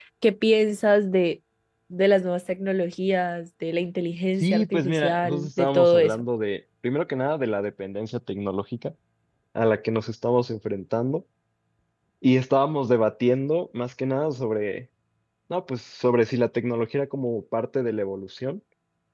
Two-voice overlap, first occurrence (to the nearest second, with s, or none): 4 s